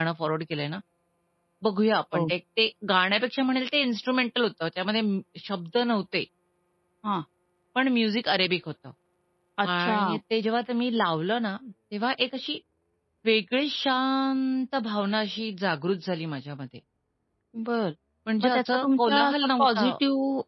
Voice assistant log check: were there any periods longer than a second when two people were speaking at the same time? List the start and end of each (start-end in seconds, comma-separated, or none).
18.4-19.9